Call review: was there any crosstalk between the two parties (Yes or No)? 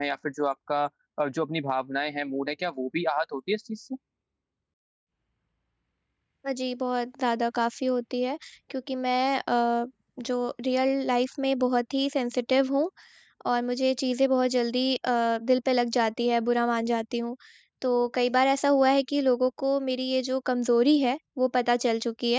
No